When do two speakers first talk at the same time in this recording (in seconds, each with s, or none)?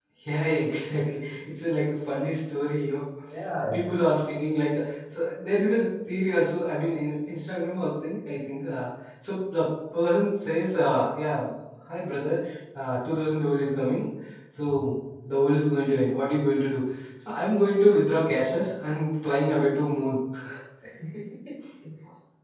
none